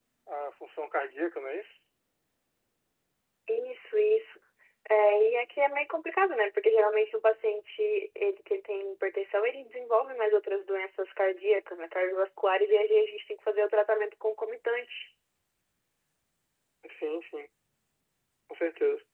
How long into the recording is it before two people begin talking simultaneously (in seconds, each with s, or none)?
none